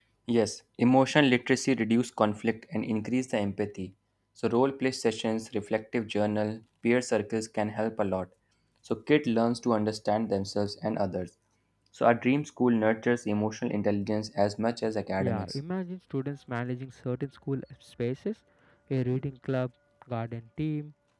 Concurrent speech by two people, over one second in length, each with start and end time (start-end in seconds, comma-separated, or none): none